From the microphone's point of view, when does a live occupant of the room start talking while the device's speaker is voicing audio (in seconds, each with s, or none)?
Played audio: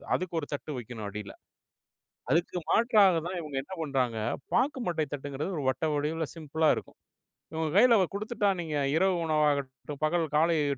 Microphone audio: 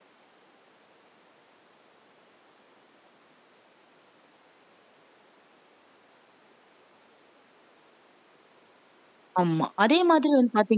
9.4 s